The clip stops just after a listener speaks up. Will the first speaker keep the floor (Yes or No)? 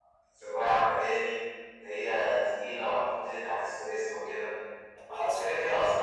Yes